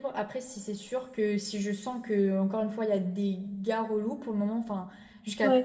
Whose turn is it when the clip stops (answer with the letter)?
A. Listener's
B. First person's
B